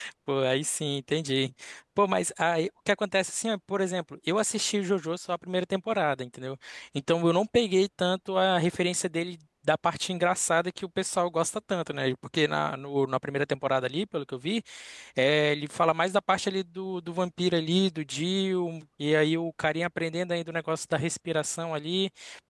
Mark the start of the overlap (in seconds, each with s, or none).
none